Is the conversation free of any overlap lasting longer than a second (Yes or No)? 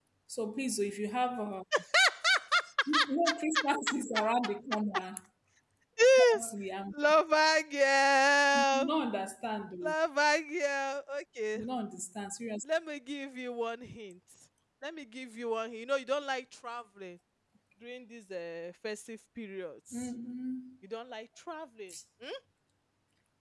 Yes